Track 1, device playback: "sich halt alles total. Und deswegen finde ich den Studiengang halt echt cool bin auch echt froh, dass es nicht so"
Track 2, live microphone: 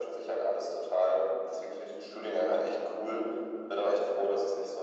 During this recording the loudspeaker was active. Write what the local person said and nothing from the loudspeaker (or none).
none